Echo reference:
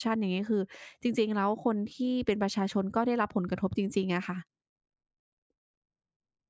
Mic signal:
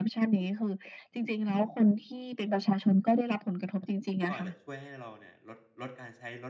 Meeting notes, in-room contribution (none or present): present